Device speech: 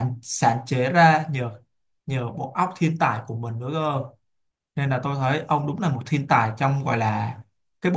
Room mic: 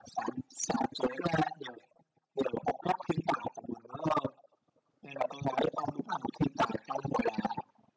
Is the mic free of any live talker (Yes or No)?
Yes